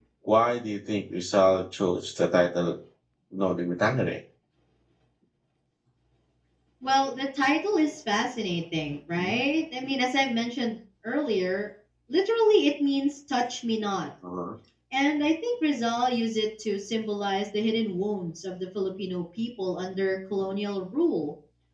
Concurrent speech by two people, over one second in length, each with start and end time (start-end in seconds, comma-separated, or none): none